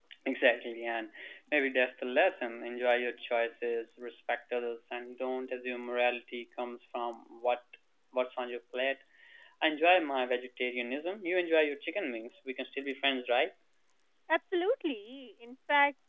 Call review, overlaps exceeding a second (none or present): none